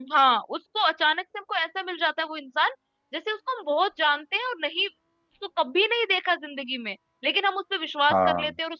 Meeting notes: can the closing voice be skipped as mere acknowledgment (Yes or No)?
Yes